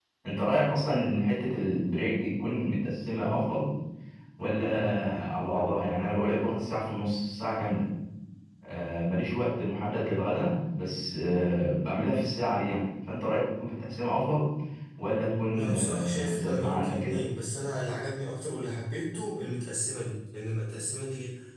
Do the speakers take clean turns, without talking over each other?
No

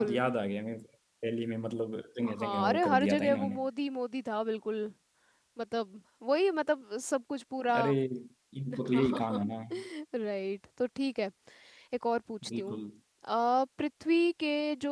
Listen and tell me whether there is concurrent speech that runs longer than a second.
Yes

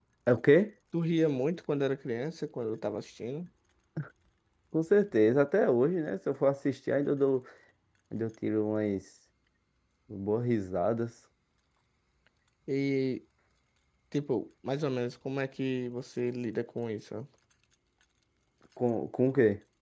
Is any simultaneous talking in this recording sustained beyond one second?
No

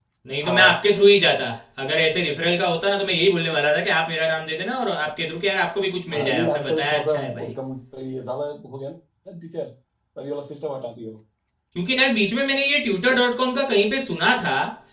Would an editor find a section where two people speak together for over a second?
Yes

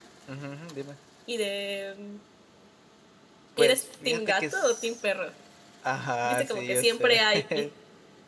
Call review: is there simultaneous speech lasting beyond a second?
Yes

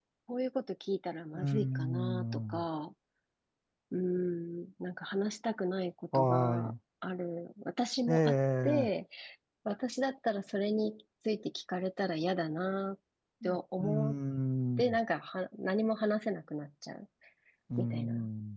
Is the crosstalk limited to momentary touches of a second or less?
No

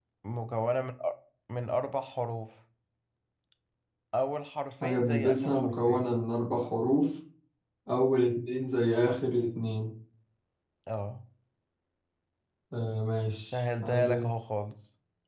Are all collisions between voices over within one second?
No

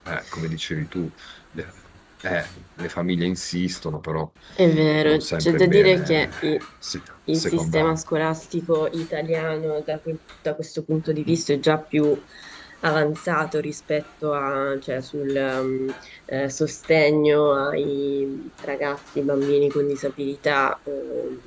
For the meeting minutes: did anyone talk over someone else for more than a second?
Yes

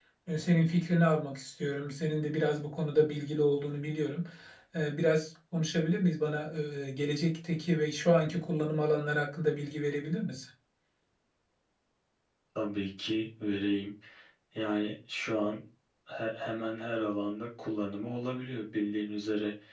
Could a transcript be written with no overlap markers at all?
Yes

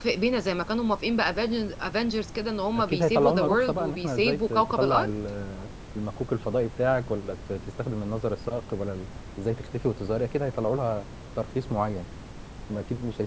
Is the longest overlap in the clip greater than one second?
Yes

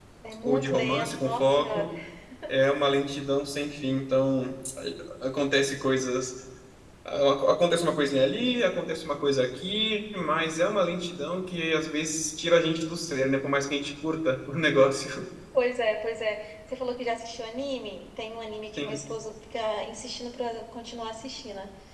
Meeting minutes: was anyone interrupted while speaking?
Yes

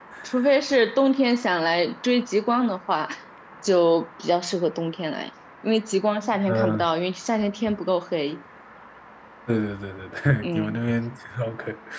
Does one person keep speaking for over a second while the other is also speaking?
No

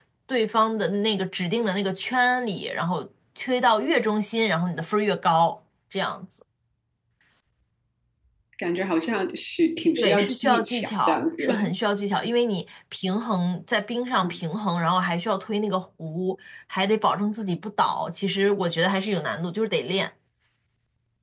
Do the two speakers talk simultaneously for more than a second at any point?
Yes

